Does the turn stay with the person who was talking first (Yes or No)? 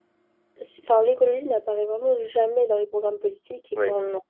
Yes